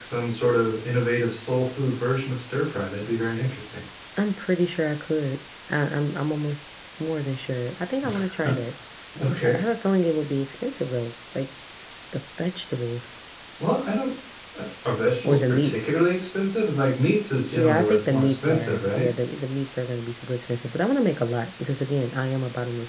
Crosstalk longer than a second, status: present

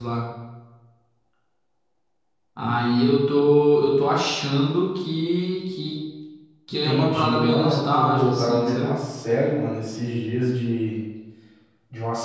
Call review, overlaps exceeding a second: present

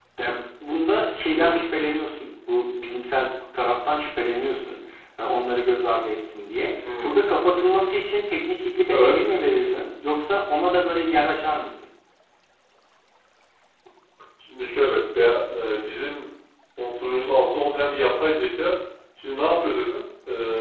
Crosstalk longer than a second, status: none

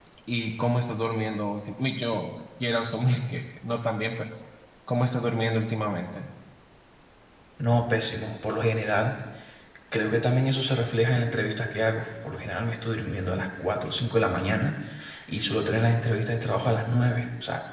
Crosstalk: none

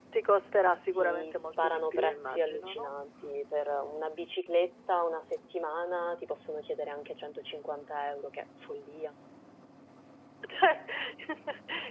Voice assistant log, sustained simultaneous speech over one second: present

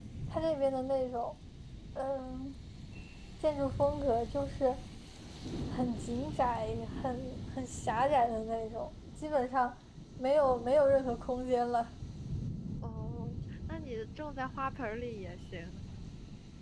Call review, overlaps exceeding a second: none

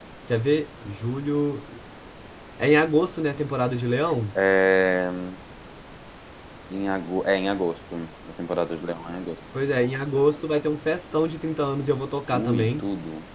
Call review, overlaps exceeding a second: none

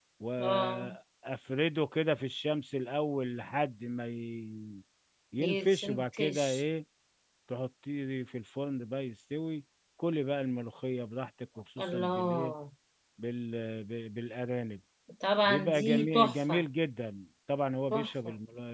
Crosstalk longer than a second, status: present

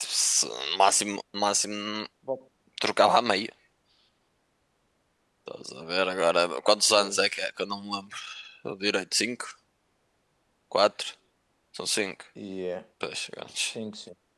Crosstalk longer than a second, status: none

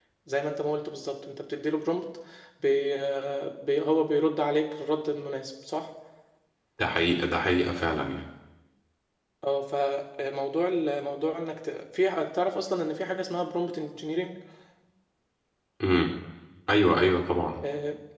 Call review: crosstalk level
none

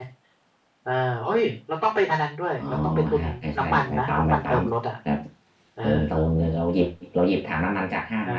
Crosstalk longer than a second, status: present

